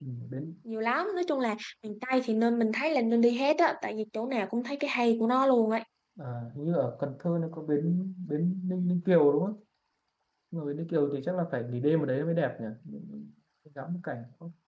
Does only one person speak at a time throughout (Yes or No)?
Yes